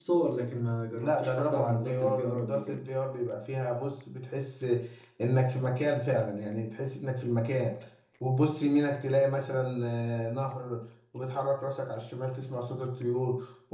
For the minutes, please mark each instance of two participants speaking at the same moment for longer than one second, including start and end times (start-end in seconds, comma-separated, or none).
0.9-2.8